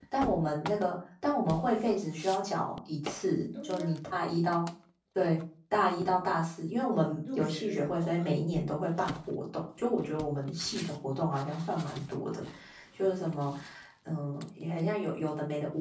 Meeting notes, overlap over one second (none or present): present